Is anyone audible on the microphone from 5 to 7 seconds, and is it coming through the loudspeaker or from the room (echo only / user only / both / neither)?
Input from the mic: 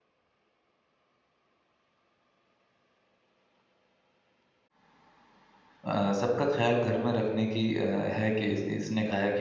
user only